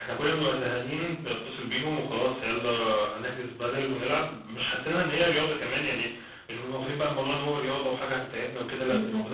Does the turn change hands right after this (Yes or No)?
Yes